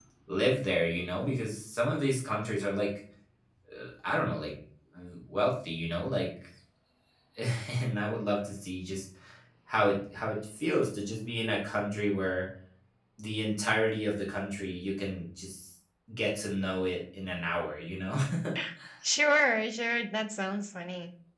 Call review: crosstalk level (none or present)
none